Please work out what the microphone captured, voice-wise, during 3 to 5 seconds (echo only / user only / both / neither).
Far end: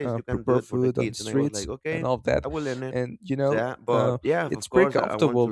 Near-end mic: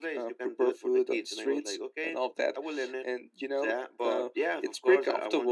echo only